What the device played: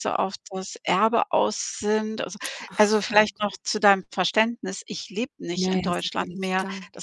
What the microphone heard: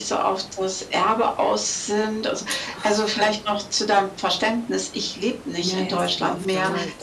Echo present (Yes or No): Yes